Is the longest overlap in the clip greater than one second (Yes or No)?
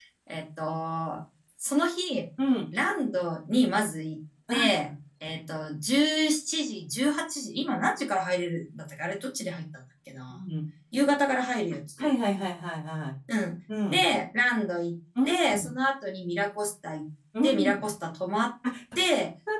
No